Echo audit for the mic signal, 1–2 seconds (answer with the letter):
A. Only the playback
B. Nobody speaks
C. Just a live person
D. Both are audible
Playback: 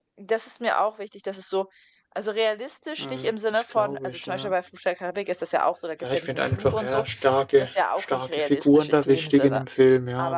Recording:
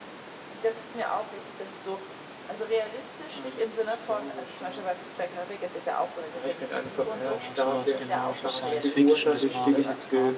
A